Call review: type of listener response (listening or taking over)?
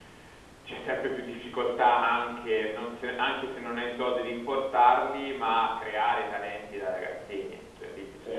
taking over